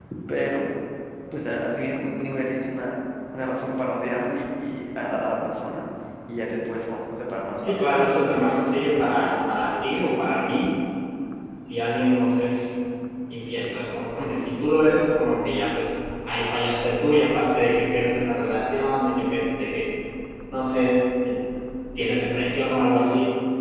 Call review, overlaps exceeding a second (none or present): present